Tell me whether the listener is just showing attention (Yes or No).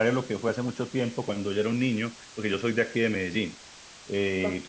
Yes